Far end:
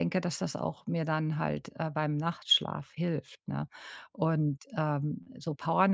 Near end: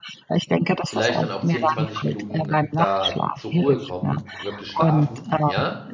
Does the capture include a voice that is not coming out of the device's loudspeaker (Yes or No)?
Yes